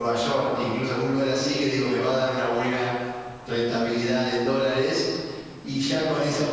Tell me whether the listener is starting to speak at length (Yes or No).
No